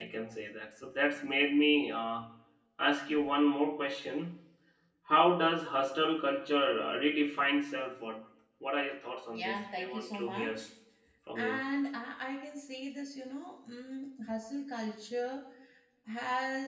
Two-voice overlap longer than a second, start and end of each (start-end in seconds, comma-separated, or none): 9.3-10.6